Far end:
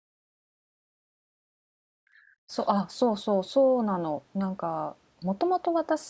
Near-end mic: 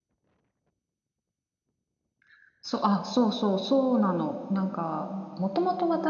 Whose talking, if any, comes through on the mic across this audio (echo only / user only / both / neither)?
echo only